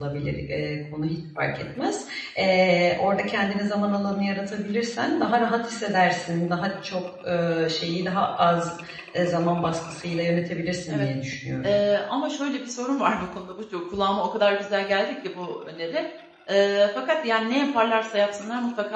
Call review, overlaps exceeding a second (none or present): none